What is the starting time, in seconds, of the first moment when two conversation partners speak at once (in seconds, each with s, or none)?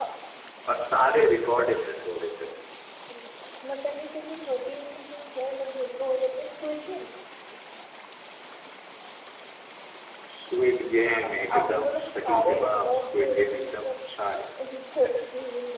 11.0 s